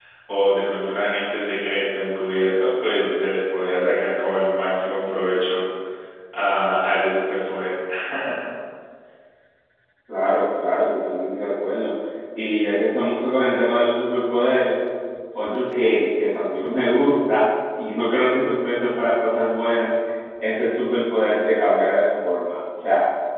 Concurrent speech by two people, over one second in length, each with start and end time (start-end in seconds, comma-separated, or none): none